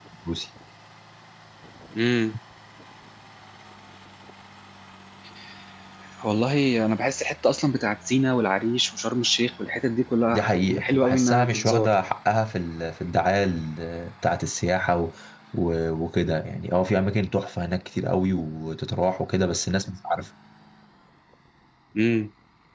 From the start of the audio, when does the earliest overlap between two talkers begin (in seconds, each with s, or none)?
10.3 s